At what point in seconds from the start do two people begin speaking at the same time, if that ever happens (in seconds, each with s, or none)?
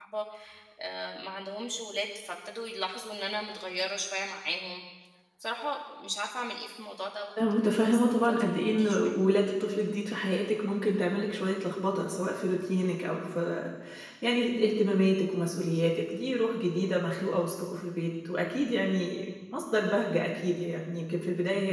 7.4 s